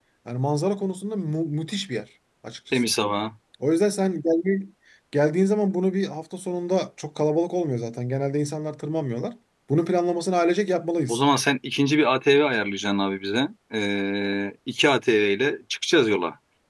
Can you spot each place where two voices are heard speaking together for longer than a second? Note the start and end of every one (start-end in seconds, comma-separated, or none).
none